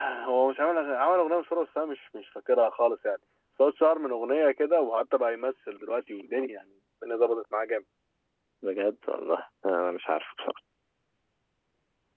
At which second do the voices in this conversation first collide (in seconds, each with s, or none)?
none